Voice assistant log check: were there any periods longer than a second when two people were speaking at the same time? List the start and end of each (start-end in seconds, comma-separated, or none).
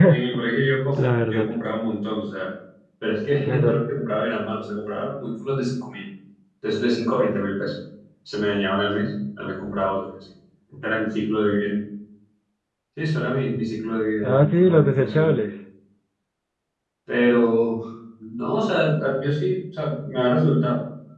14.2-15.5